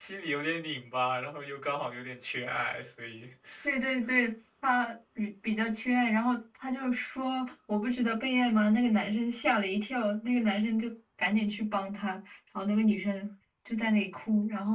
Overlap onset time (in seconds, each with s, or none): none